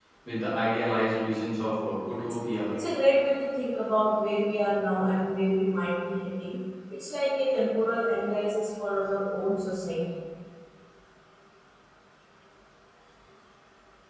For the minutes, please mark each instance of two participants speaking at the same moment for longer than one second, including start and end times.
none

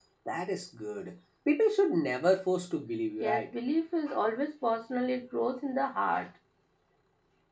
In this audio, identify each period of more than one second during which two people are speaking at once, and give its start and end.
none

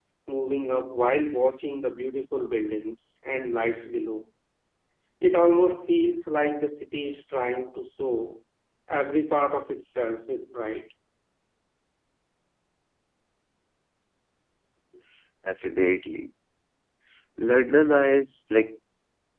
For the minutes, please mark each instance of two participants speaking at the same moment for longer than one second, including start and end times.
none

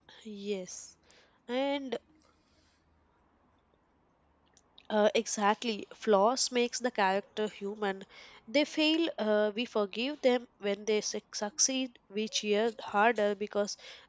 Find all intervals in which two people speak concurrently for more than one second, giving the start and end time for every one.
none

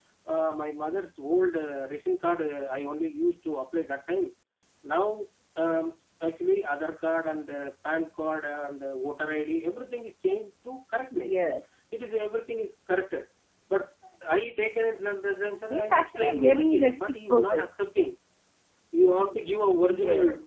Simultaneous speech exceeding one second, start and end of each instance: 15.7-17.7

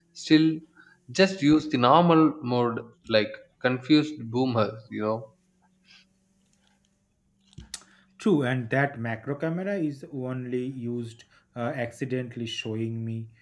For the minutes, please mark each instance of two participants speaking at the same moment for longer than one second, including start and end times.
none

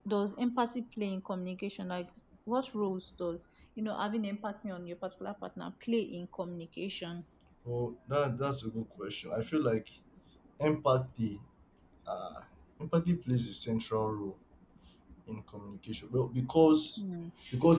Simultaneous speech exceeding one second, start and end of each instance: none

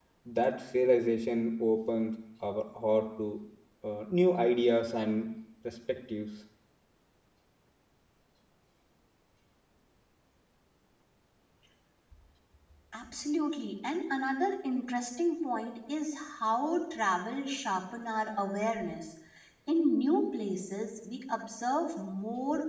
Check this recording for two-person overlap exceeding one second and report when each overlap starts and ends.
none

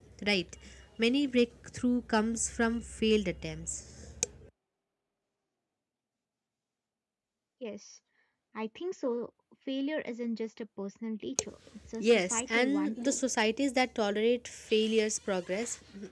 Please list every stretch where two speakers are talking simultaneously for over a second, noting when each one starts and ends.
12.0-13.2

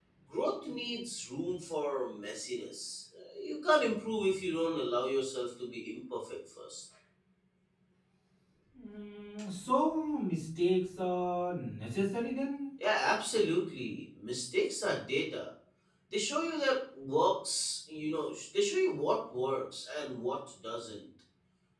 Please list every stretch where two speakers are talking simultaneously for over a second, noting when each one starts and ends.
none

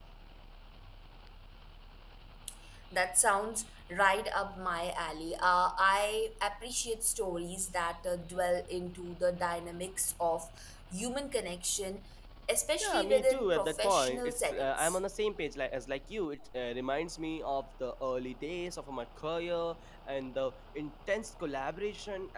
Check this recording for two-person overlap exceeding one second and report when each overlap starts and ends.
12.8-15.0

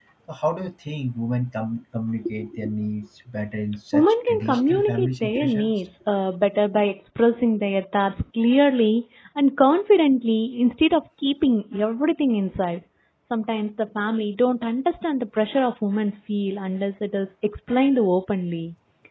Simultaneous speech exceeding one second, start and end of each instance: 3.9-5.7

